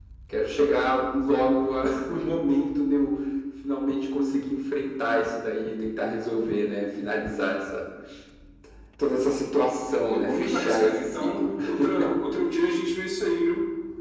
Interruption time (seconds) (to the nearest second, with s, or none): 10 s